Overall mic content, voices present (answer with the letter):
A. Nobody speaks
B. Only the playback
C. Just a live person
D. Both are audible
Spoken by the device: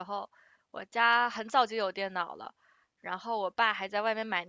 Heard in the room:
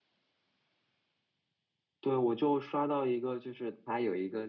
C